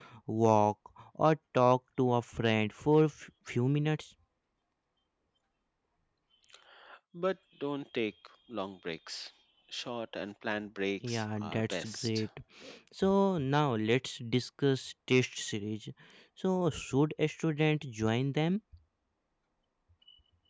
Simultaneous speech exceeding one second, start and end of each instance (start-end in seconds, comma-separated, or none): 11.0-12.2